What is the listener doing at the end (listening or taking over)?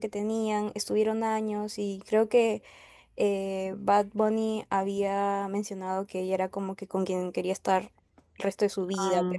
listening